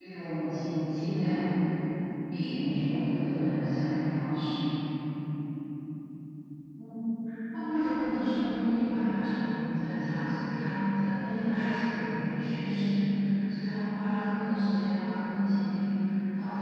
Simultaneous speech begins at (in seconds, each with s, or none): none